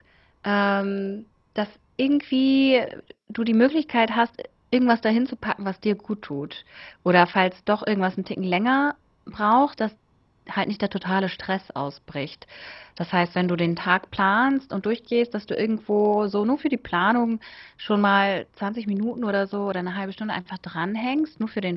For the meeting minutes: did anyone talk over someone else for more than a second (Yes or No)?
No